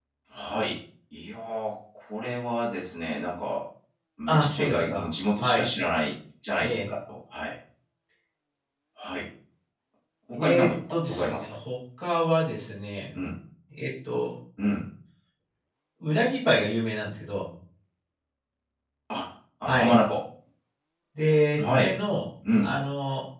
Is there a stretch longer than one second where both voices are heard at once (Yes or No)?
Yes